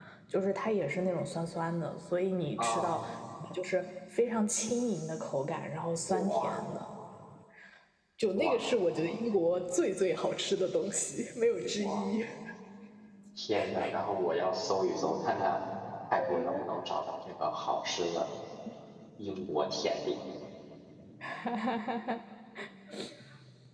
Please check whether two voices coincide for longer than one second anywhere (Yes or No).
No